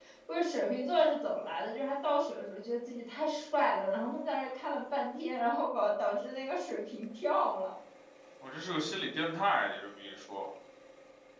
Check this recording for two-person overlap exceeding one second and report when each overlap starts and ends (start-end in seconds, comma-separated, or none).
none